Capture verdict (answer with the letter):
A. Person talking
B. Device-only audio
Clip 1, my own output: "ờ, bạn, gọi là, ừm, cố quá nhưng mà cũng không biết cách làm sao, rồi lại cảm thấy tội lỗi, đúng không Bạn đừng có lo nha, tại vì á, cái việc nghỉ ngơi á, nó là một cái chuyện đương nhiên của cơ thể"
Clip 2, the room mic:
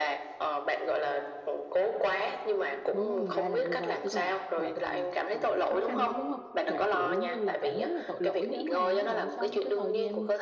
A